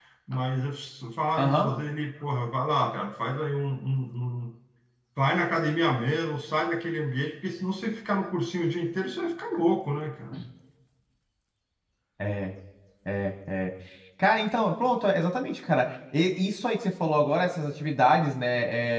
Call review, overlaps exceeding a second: none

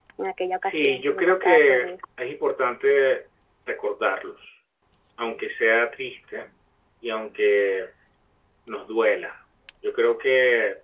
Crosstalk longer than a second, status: present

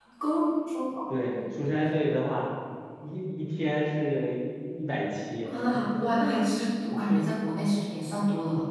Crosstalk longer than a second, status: none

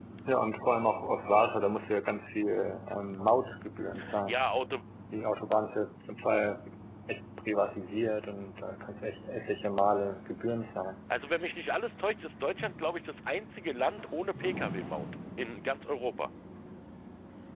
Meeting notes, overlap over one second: none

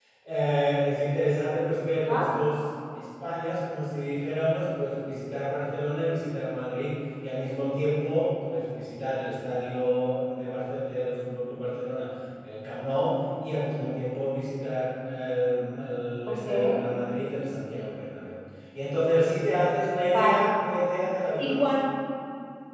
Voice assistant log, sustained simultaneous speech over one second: none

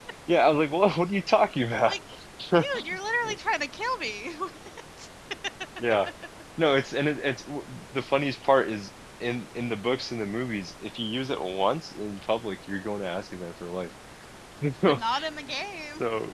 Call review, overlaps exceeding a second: none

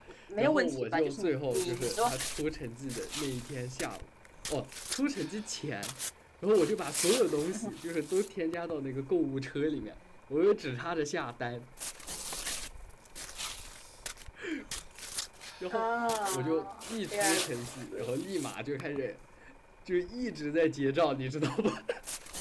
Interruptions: present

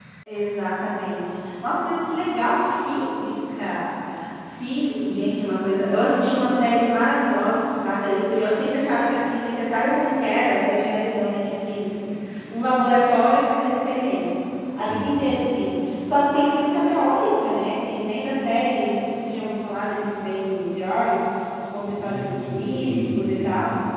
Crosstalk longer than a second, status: present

